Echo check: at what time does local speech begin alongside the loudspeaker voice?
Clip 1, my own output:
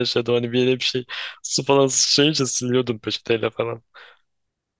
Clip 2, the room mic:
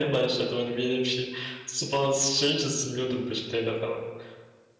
none

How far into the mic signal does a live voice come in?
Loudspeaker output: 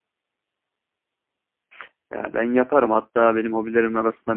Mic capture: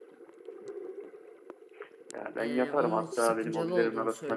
2.4 s

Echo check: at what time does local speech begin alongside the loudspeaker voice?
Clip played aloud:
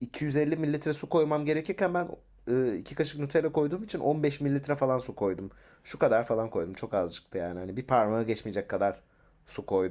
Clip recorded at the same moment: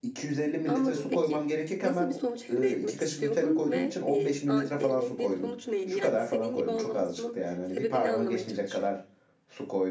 0.7 s

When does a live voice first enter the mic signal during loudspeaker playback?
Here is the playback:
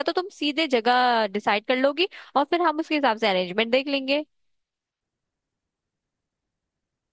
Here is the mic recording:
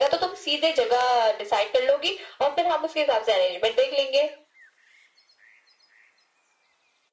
none

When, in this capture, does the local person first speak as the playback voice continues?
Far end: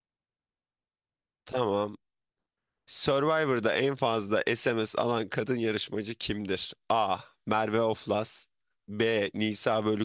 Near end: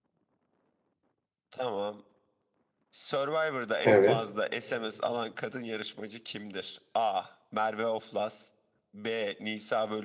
3.9 s

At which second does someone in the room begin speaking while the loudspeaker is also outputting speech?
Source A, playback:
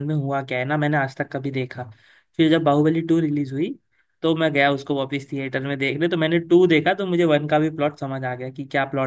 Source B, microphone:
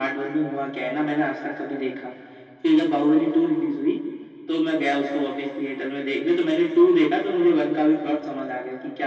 none

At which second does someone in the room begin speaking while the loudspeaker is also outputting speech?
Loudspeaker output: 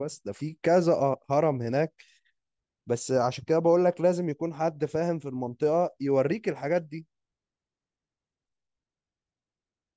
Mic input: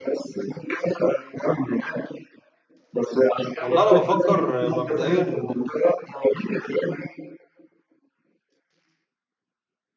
3.6 s

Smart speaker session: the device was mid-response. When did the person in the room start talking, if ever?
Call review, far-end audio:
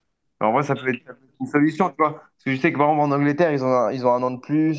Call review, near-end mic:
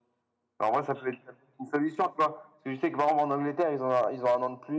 none

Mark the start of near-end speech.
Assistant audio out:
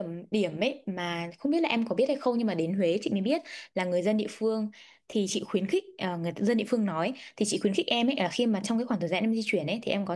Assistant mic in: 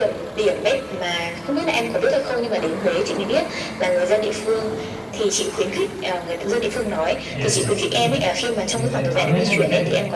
7.3 s

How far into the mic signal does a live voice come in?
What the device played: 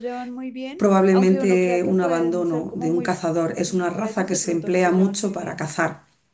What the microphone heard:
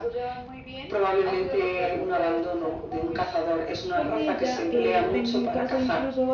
3.9 s

